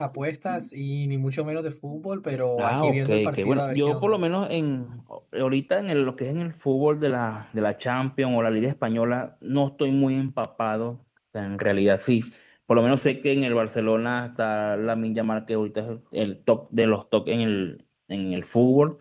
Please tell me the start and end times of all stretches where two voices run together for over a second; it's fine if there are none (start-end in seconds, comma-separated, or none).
2.6-4.2